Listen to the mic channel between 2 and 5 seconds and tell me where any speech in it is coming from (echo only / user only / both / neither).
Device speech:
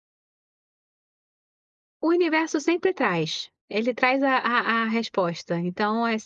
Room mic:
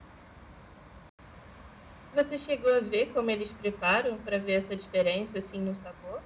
user only